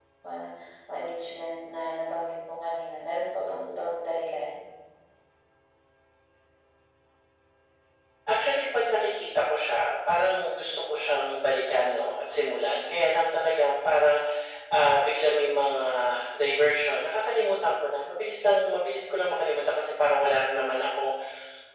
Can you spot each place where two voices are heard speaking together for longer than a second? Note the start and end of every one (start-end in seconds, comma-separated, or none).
none